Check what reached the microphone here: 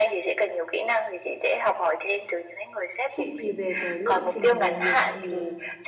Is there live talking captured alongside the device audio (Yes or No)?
Yes